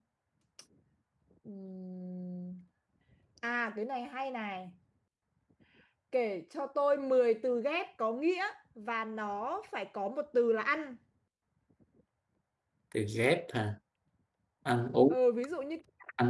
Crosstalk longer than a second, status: none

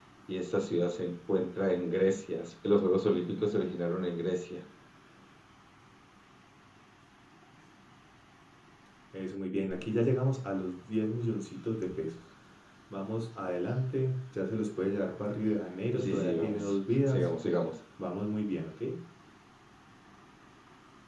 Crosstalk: present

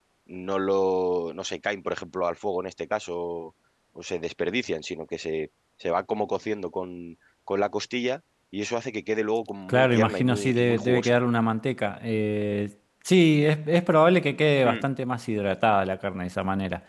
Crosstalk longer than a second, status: present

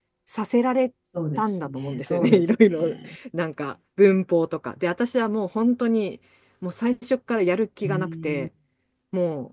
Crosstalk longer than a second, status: present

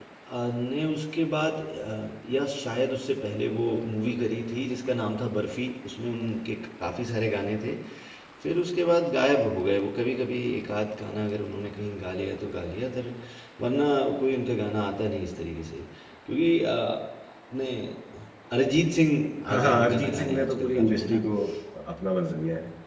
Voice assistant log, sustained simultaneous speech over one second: present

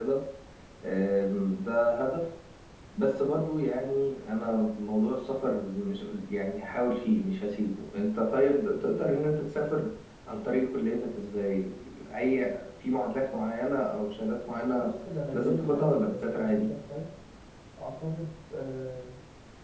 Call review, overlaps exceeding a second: present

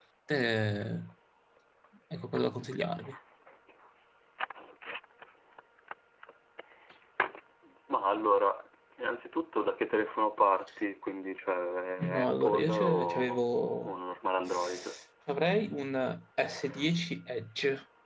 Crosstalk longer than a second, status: present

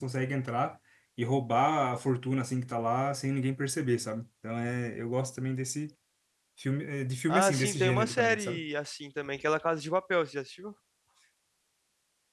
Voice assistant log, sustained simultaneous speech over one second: present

